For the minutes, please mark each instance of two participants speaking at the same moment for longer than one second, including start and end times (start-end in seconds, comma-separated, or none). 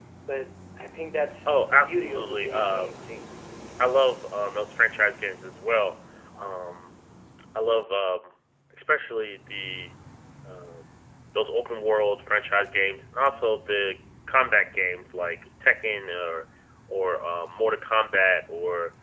1.5-2.9